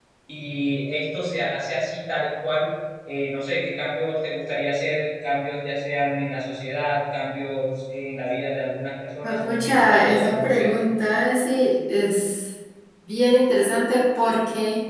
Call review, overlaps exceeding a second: present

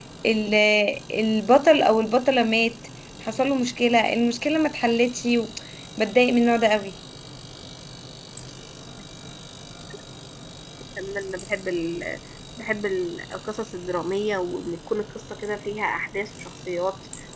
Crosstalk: none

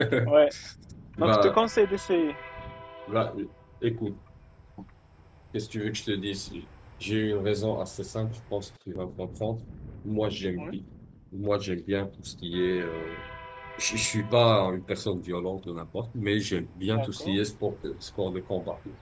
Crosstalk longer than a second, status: none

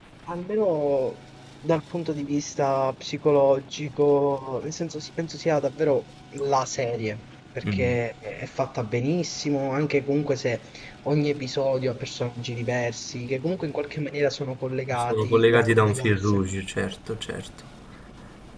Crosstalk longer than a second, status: present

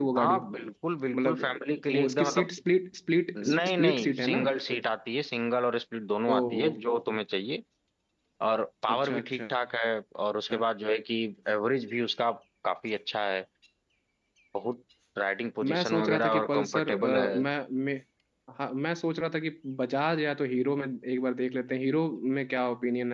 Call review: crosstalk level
present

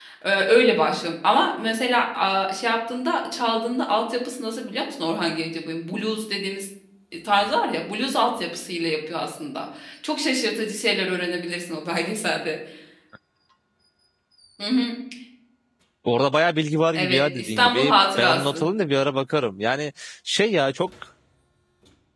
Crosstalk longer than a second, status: present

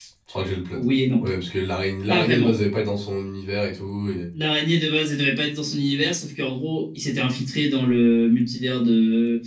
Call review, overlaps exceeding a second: none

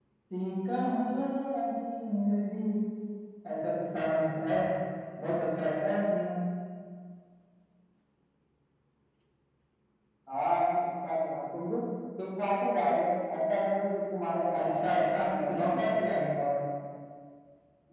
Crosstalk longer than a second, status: present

